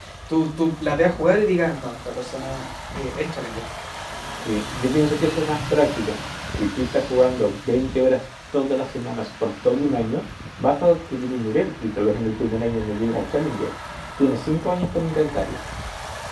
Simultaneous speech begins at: none

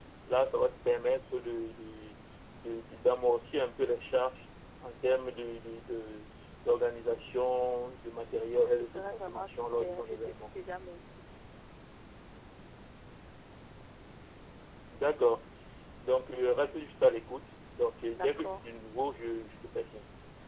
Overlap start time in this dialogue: 9 s

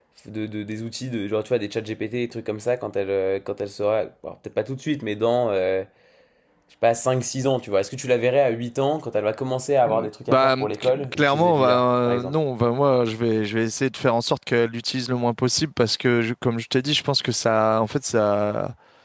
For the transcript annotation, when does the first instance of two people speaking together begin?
10 s

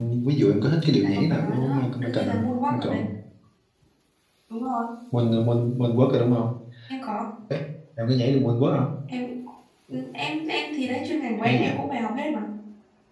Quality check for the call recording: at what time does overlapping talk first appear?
1 s

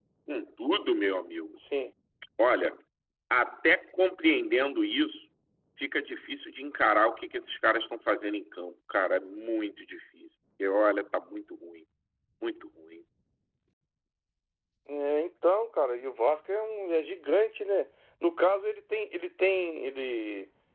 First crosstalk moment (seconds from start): none

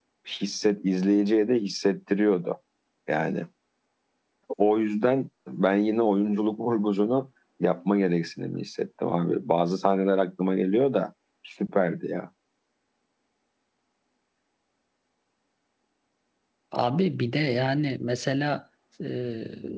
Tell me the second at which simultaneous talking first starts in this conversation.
none

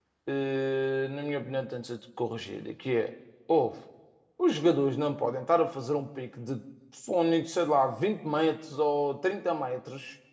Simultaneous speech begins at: none

